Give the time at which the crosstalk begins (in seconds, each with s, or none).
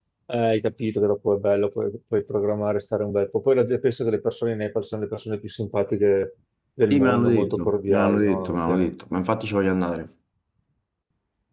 6.9 s